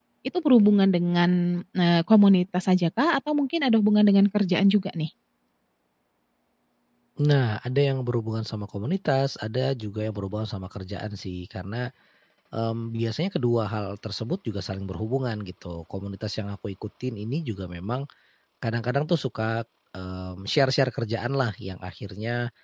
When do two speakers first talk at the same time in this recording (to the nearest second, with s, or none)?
none